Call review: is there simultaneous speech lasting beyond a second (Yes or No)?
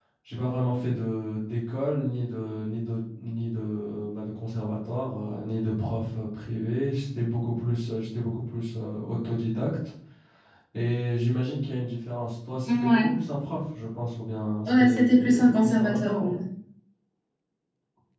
Yes